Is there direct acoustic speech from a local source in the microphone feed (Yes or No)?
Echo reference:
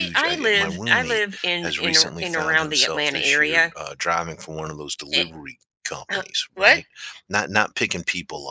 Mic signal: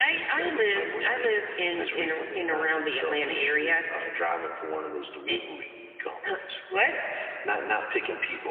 No